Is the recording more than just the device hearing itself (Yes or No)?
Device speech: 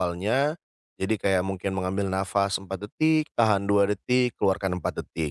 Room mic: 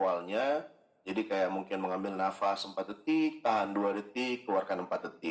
No